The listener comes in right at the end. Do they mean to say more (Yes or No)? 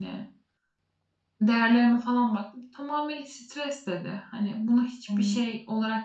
No